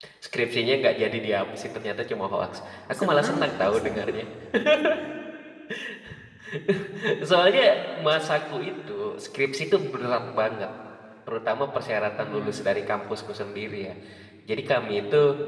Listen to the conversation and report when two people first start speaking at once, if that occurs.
2.9 s

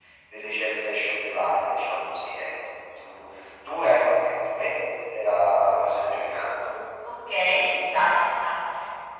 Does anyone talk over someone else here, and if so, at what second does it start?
none

